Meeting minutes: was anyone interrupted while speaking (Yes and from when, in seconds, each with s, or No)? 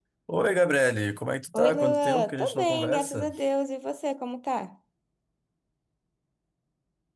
Yes, from 1.5 s